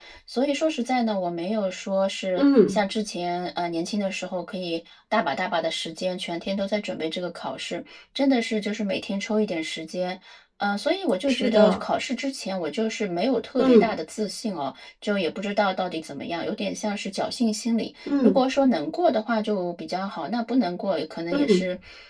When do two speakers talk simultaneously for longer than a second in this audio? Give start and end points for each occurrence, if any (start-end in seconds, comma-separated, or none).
none